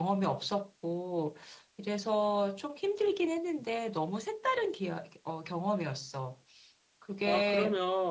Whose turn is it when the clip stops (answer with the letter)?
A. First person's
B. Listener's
B